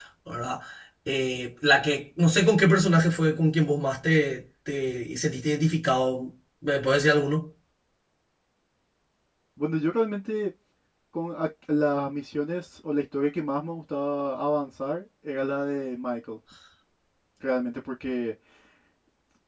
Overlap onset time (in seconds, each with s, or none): none